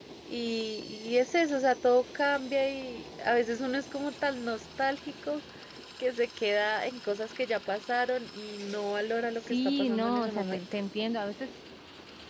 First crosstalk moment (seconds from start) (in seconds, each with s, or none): 9.4 s